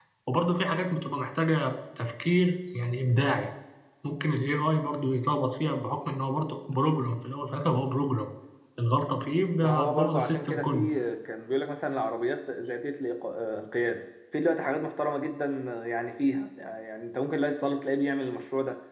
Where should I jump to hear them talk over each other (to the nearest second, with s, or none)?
10 s